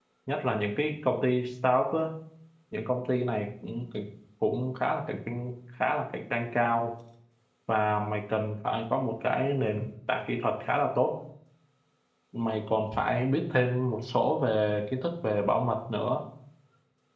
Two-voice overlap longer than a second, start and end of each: none

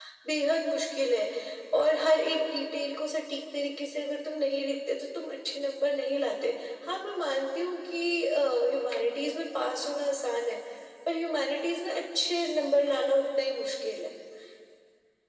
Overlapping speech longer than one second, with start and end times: none

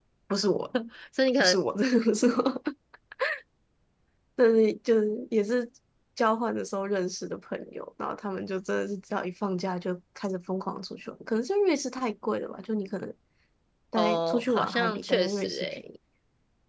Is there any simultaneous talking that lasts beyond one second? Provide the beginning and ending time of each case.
14.0-15.8

